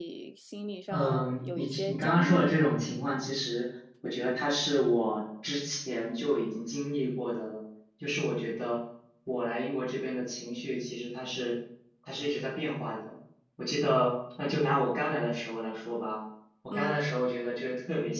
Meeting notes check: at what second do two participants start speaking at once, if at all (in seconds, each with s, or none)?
0.9 s